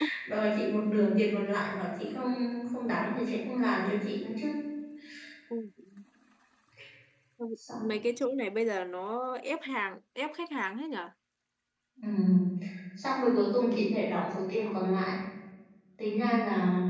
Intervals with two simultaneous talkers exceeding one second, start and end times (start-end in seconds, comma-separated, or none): none